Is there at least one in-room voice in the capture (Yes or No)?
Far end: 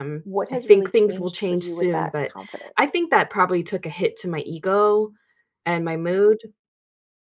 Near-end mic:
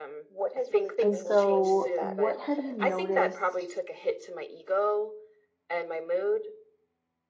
Yes